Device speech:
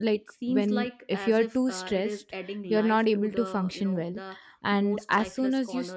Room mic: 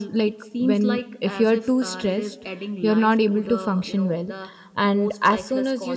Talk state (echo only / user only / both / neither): echo only